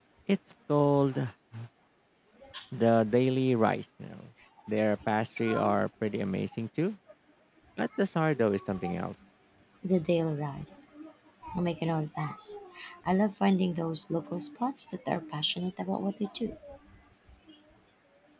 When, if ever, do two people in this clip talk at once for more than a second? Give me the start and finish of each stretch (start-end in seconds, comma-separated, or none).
none